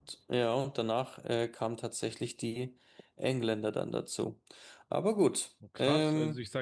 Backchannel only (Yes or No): No